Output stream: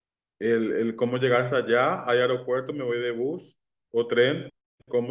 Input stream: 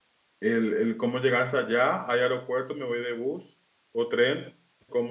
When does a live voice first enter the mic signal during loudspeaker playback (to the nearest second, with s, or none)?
none